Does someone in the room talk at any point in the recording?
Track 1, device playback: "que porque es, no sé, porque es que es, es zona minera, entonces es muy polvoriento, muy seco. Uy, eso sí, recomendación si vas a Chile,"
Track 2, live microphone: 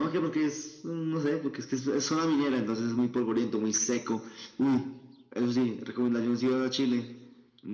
No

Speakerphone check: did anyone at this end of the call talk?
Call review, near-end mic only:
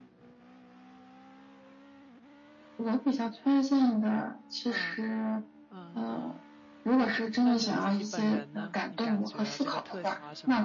Yes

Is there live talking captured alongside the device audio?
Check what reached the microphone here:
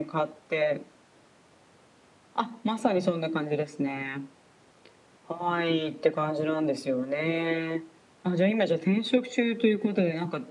No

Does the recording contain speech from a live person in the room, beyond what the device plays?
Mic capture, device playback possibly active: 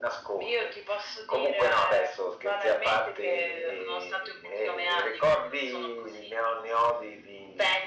No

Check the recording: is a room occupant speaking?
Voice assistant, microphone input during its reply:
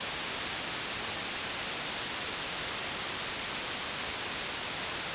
No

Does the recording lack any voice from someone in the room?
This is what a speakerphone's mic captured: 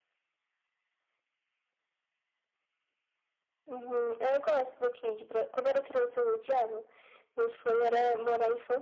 Yes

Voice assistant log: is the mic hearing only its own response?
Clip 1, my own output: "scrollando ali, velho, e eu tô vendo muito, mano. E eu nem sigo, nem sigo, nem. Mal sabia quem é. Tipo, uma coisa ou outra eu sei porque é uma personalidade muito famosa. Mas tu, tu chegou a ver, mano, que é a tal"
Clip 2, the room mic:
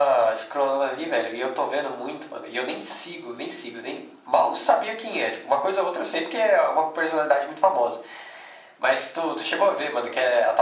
Yes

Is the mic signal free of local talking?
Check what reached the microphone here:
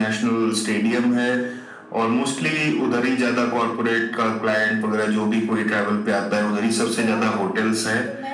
No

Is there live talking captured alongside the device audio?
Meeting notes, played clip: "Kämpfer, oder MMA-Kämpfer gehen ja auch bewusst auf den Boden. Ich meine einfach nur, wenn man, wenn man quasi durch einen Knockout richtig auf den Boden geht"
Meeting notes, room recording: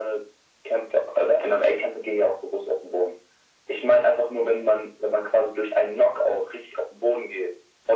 No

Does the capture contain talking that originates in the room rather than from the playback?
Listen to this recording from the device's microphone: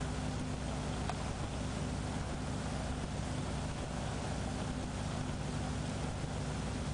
No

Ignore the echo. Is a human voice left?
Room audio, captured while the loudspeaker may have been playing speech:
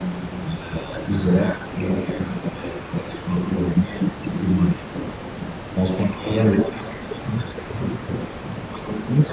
No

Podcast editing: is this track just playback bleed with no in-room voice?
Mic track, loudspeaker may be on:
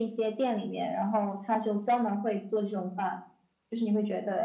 Yes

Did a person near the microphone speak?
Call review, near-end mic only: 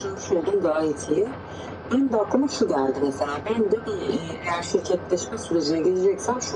No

